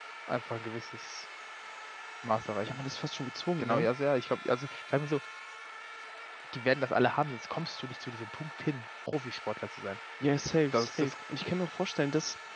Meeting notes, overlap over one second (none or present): none